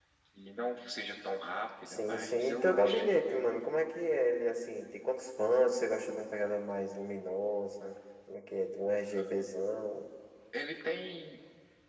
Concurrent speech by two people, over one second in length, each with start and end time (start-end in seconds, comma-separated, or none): 1.9-3.1